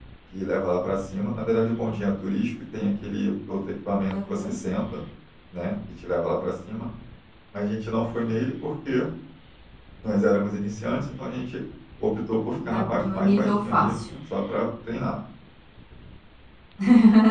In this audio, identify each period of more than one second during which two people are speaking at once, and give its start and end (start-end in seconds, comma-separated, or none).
12.7-14.0